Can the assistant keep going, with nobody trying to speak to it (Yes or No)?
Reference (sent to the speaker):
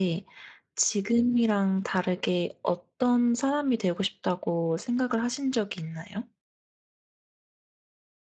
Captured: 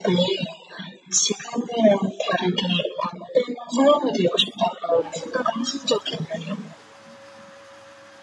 Yes